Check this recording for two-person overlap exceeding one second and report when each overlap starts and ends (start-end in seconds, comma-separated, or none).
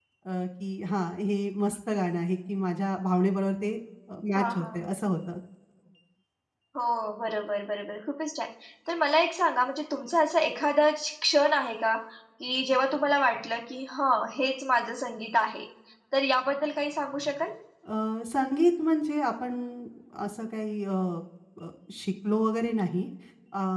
none